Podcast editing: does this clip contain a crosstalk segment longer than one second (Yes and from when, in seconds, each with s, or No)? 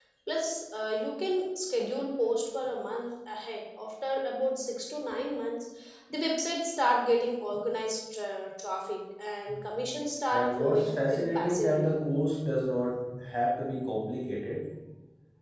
Yes, from 10.3 s